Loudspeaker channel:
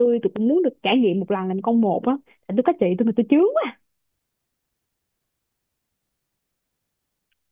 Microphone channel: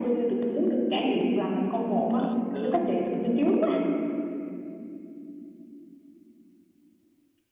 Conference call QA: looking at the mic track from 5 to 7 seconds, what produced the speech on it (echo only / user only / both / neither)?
neither